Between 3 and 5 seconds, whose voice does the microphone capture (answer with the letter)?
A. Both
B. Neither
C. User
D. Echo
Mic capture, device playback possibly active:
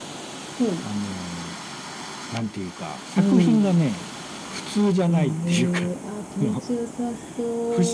A